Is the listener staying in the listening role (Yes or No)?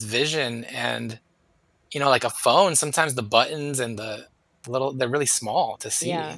No